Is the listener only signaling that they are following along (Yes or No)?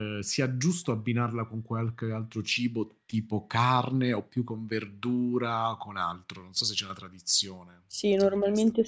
No